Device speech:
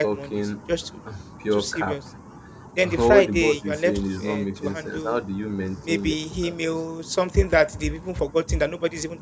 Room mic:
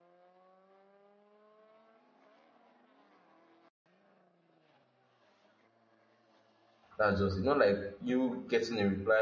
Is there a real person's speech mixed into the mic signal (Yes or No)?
Yes